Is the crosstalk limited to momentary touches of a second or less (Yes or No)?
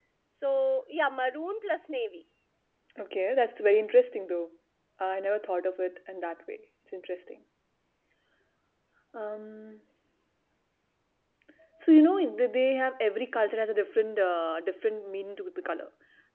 Yes